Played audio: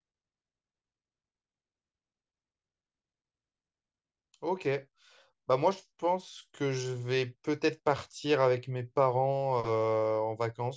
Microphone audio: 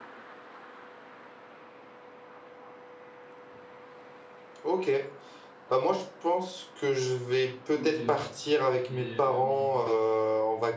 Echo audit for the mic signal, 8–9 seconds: both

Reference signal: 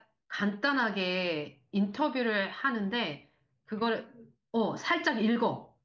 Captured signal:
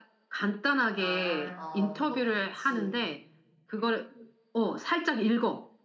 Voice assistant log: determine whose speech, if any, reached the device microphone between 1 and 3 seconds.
both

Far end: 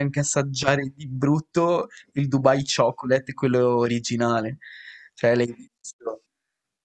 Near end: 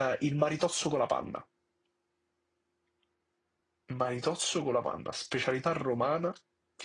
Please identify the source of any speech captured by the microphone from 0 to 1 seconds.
user only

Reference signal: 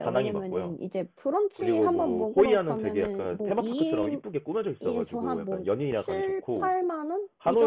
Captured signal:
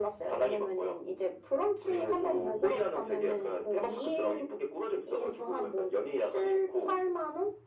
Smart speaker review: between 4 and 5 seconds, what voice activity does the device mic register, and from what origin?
echo only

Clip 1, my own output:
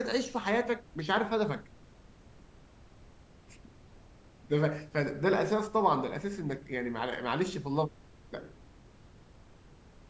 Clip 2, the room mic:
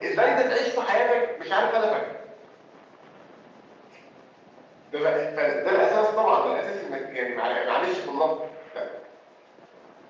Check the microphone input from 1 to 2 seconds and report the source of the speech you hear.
echo only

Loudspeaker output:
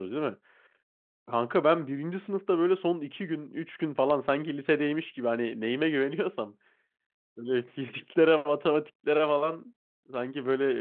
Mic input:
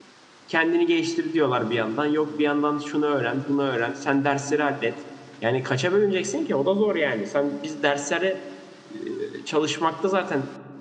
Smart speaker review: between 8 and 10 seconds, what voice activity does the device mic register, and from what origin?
user only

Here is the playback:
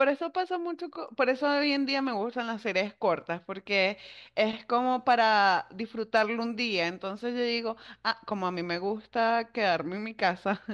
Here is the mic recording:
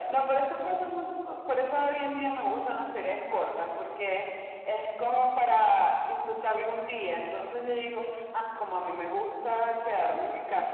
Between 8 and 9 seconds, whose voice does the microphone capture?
echo only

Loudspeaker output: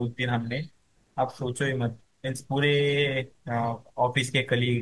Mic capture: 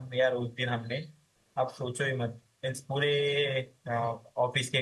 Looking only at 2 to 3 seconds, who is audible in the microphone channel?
echo only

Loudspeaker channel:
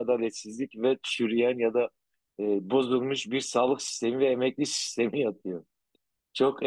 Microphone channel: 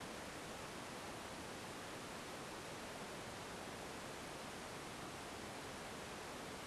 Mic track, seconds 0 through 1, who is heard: neither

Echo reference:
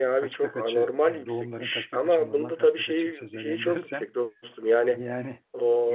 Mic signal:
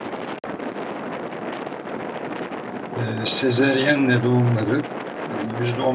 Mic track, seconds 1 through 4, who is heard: user only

